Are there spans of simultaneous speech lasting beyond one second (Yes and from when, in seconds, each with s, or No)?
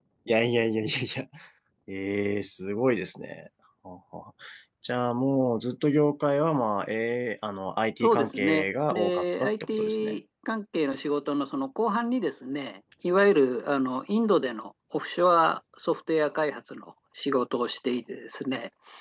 Yes, from 8.0 s